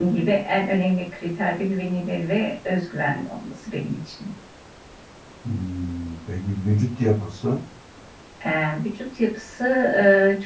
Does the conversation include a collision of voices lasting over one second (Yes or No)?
No